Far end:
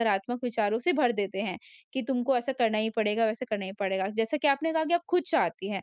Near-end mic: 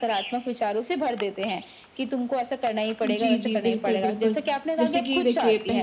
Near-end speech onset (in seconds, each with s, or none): 3.0 s